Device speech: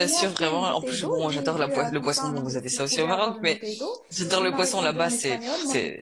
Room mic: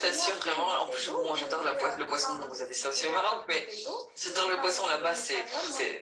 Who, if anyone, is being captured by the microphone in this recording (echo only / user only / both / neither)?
echo only